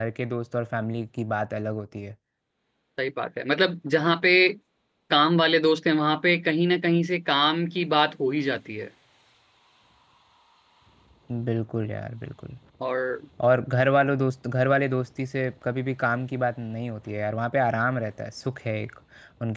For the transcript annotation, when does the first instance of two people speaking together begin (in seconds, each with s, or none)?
none